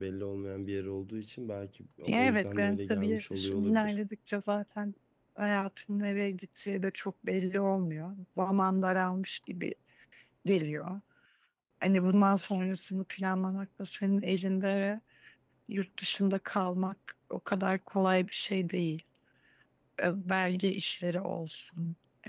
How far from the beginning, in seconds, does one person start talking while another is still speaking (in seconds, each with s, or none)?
2.1 s